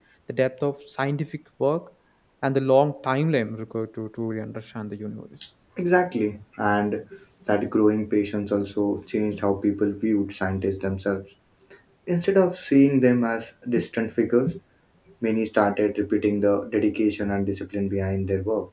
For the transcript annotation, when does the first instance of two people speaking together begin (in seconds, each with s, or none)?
none